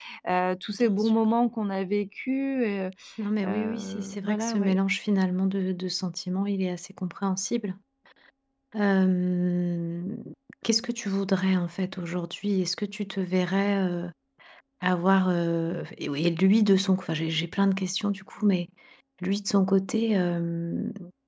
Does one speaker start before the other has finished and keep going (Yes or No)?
Yes